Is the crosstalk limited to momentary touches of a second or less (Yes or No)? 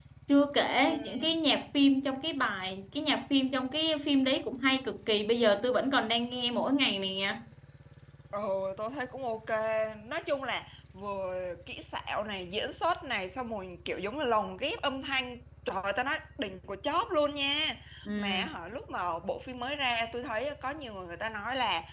Yes